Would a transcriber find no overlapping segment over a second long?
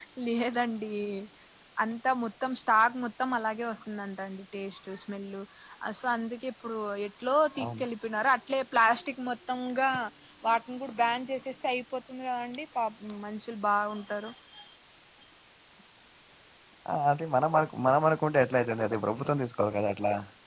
Yes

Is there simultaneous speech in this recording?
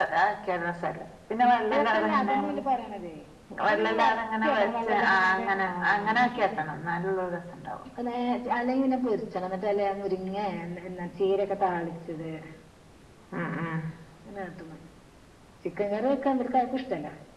Yes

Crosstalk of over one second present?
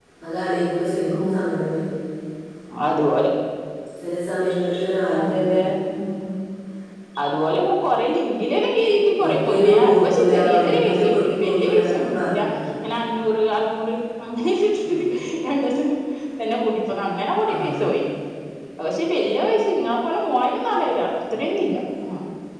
Yes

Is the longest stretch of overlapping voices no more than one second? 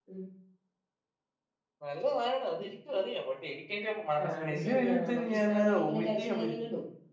No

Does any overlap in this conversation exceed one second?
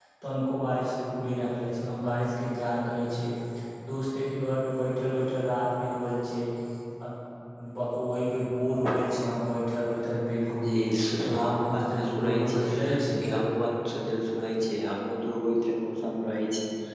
Yes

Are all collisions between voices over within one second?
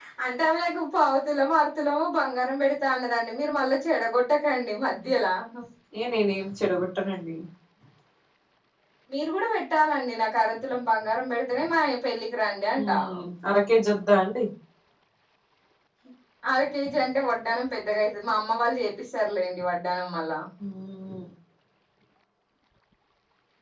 Yes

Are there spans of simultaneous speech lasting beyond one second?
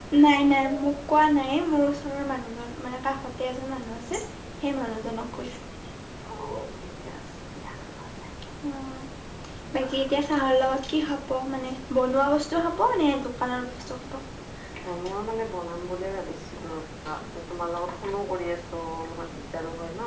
No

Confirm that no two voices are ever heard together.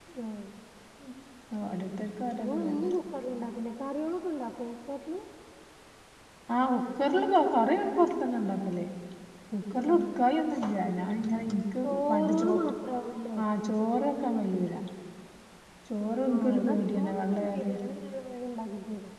No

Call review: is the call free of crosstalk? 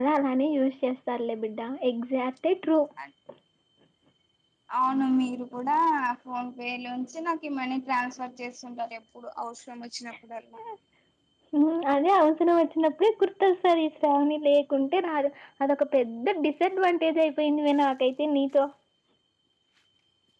Yes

